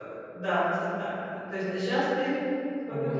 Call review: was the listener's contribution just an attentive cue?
No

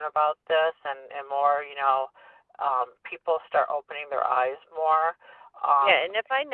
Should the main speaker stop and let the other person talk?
Yes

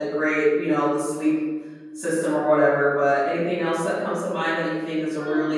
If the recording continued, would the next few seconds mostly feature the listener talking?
Yes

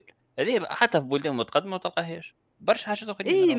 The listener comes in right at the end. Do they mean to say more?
Yes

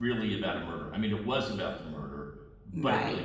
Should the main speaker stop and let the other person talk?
No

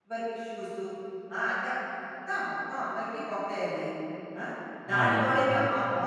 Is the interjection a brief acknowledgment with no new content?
Yes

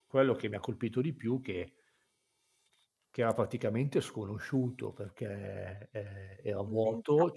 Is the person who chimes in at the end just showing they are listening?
Yes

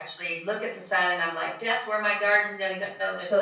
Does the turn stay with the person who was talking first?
No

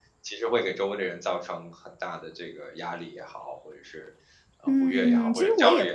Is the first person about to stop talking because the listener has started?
Yes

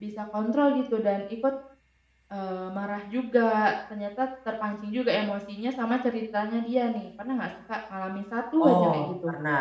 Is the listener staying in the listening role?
No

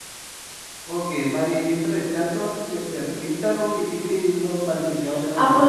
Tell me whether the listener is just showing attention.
No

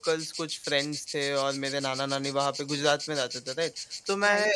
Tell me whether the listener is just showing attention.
Yes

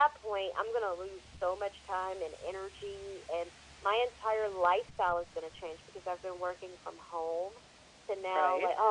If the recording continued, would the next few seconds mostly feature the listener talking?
No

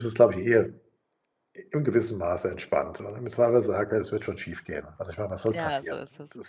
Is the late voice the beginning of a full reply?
Yes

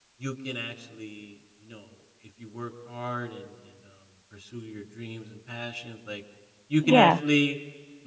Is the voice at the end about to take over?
No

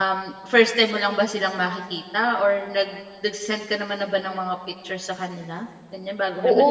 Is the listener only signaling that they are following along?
No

